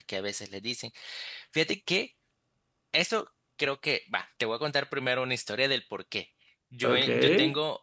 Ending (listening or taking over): listening